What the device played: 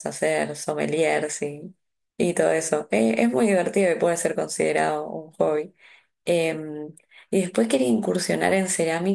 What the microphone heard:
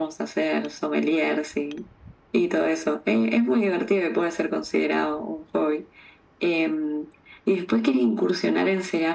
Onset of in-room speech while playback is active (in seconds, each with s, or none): none